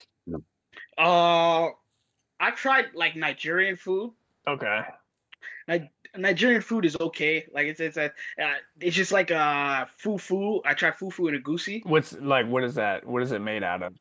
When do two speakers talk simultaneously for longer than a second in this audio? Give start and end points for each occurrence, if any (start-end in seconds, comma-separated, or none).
none